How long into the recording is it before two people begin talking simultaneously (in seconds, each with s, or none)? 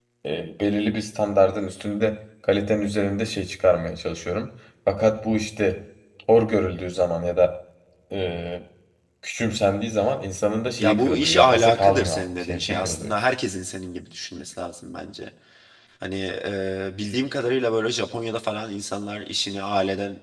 10.8 s